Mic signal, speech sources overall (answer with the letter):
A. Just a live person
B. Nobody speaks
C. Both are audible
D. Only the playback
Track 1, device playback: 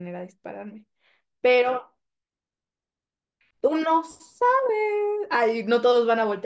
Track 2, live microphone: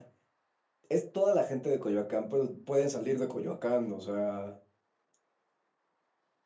A